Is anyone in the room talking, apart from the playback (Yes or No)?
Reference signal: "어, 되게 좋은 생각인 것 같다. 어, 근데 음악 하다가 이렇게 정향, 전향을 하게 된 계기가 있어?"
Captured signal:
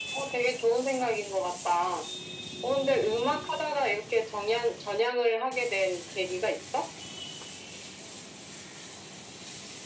No